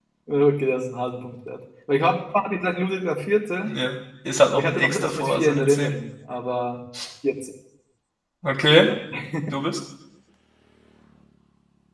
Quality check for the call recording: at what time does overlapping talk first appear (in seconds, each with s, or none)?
4.5 s